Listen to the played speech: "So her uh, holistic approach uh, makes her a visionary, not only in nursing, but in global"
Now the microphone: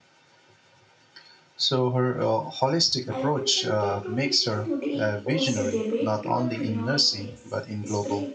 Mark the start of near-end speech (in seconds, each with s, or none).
3.1 s